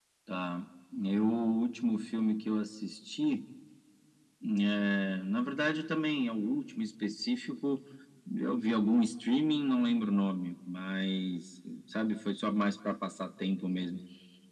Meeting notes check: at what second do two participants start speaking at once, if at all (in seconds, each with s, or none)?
none